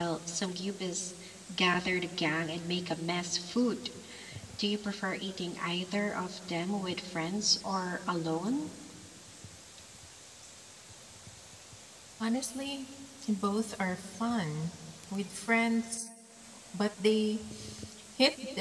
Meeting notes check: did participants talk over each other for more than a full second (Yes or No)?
No